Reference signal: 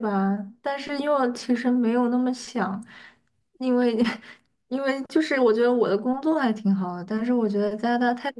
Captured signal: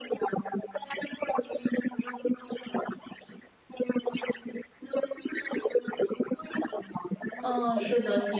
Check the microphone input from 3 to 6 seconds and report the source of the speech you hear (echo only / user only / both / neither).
echo only